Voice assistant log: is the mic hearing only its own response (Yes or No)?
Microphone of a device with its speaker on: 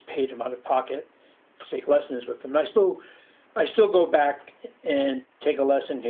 No